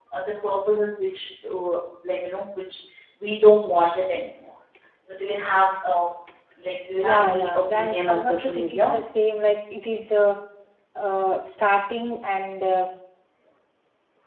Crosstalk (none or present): present